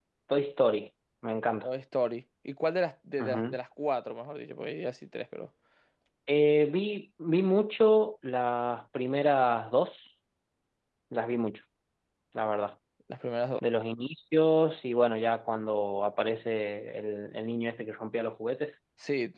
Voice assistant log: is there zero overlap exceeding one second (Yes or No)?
Yes